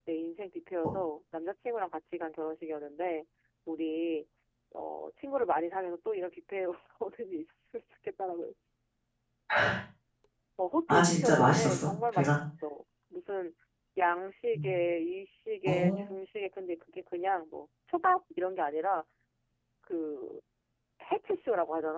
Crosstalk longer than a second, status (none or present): present